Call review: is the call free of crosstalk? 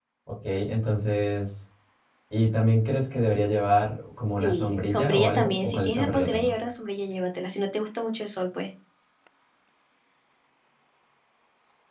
No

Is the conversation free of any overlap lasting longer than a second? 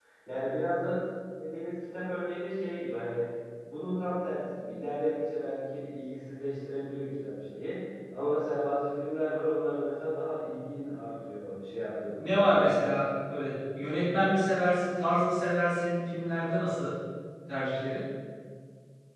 Yes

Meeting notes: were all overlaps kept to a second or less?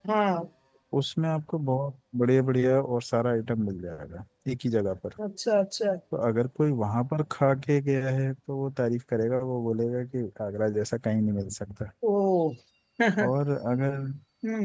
Yes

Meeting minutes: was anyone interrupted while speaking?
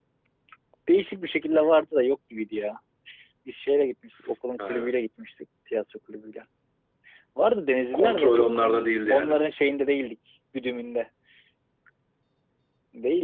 Yes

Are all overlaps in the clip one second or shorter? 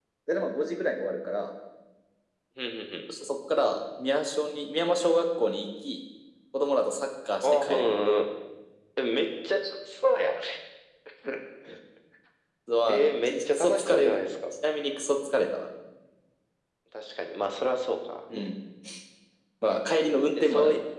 No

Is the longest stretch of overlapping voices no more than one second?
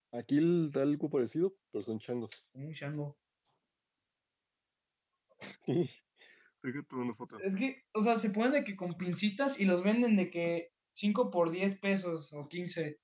Yes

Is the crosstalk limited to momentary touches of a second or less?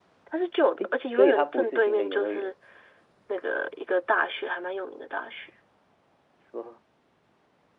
No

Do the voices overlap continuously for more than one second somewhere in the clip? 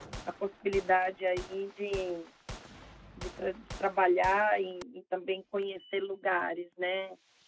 No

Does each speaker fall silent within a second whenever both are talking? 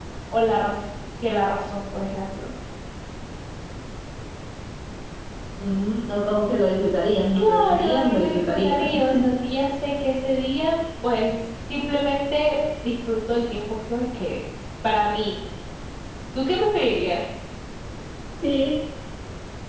No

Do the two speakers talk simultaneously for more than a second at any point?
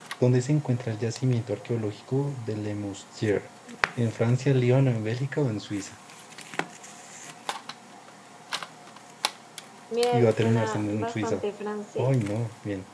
Yes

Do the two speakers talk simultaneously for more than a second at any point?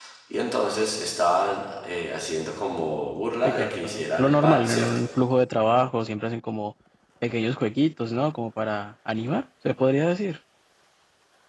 Yes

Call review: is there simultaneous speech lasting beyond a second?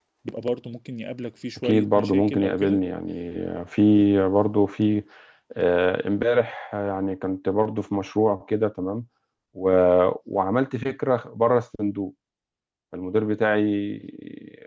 Yes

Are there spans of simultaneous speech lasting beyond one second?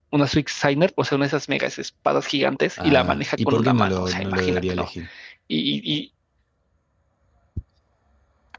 Yes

